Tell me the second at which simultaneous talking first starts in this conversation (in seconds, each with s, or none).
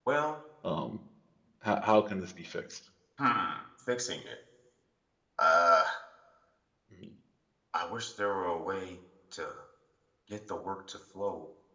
none